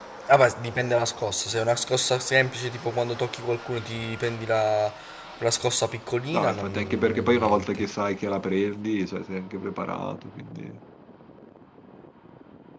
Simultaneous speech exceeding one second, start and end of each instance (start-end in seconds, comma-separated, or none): 6.3-7.9